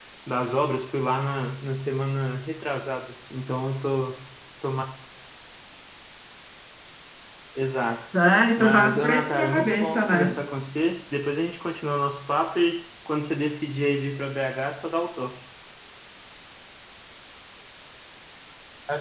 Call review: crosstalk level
present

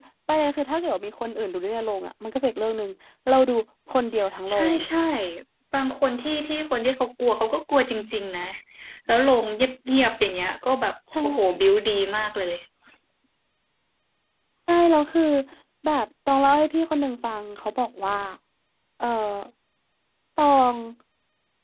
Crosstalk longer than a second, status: none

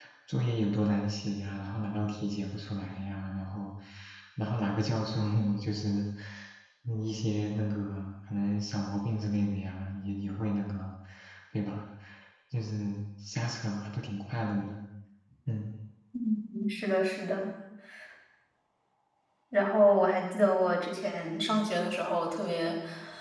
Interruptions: none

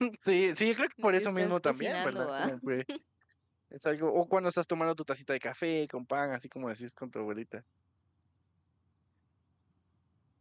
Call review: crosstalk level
present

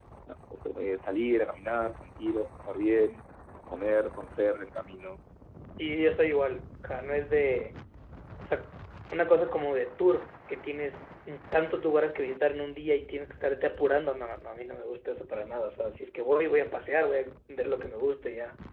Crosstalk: none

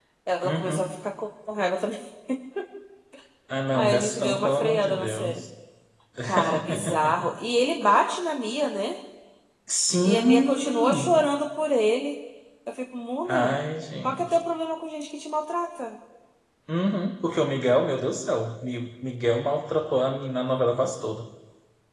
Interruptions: present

